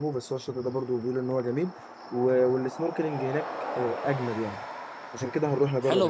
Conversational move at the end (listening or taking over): taking over